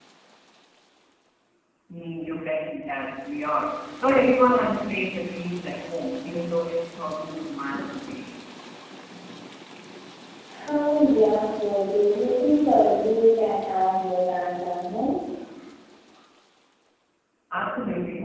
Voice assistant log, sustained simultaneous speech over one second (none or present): none